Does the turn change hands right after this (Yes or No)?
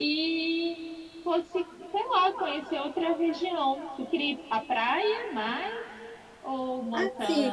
Yes